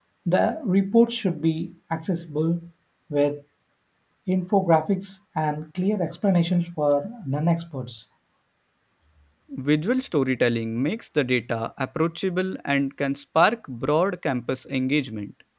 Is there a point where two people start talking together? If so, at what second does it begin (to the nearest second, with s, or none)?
none